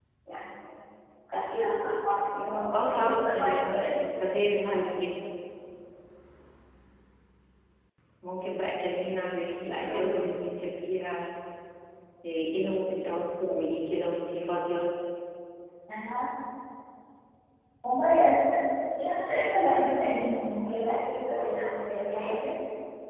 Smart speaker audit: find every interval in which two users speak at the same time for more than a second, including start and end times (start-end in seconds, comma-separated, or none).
2.7-4.0